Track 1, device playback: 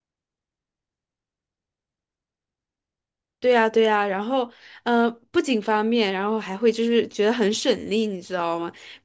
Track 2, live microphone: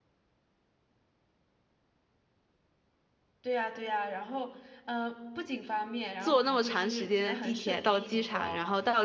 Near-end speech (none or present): present